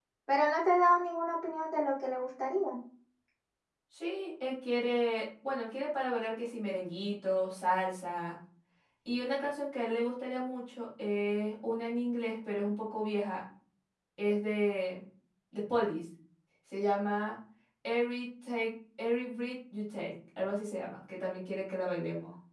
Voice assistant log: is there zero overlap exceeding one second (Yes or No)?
Yes